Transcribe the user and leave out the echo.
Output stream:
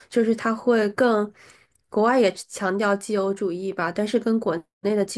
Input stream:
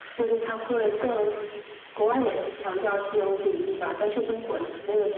none

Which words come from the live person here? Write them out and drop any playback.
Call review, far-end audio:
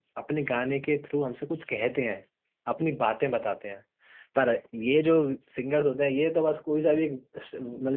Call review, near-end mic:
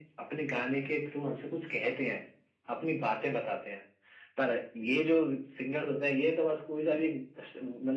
none

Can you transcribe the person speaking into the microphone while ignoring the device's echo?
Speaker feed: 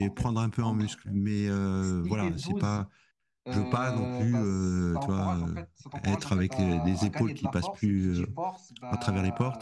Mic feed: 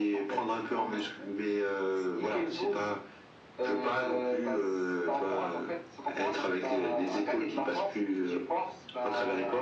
none

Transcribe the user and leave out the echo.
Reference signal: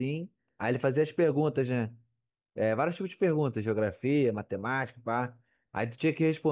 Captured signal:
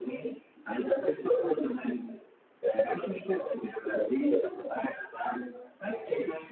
none

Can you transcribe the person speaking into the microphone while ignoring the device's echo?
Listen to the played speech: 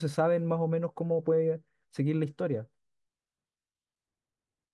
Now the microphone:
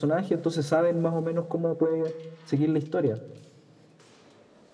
none

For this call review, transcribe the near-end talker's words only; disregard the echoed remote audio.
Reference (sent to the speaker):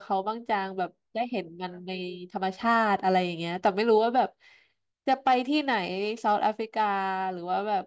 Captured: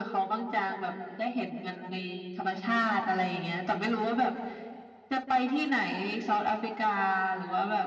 none

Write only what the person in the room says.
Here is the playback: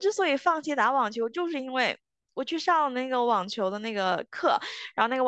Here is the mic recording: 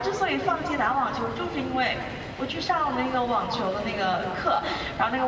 none

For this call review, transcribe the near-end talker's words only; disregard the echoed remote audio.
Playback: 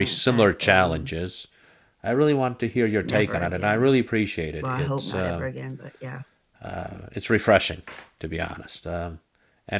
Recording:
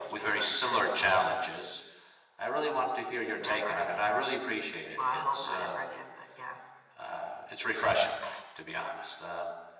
none

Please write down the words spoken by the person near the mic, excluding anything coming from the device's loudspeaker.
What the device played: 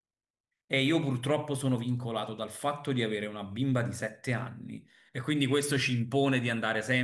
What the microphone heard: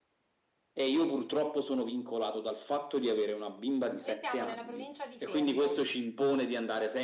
noi siamo nella provincia di Fermo,

